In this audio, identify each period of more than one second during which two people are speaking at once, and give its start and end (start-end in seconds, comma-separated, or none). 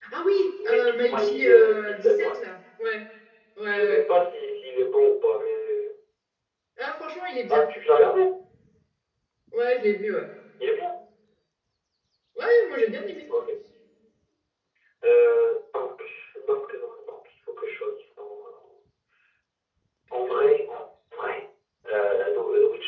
0.6-2.3